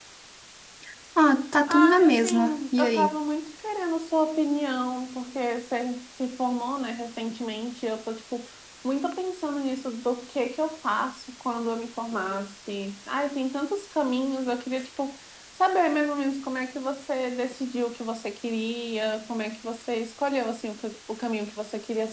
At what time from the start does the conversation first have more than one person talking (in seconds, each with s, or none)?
1.7 s